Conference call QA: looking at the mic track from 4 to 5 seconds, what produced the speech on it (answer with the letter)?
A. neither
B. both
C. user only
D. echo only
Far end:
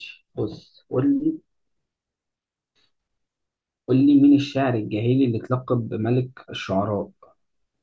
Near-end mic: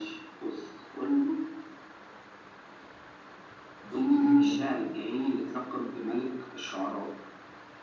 B